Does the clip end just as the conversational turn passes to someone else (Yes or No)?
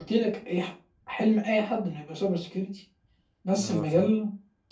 No